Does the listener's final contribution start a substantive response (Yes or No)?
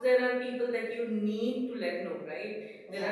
No